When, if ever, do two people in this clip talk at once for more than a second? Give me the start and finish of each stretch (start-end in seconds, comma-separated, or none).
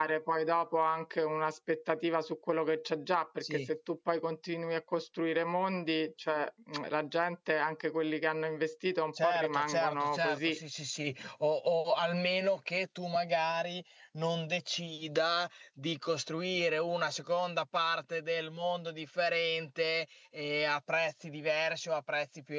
9.2-10.6